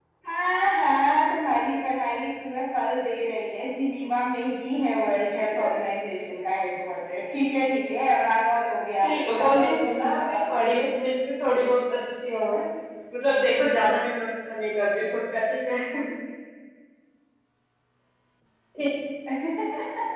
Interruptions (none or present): present